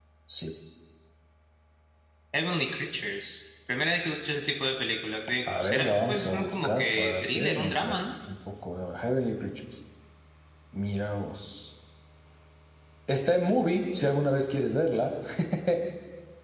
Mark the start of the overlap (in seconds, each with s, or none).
5.5 s